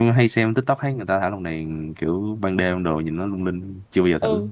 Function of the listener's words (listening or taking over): taking over